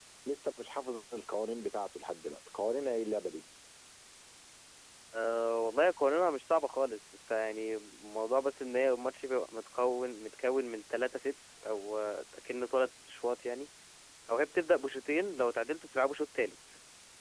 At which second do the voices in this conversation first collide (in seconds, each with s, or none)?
none